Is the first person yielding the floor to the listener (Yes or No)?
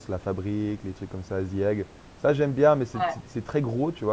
No